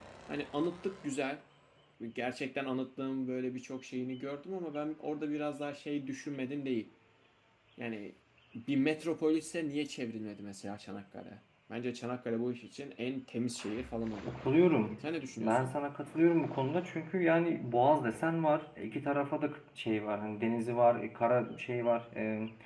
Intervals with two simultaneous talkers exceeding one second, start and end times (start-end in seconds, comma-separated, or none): none